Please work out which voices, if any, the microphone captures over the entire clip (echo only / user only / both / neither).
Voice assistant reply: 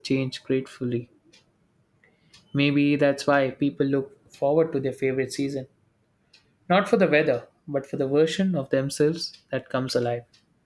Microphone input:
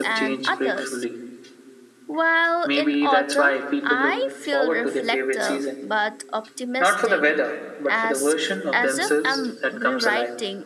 both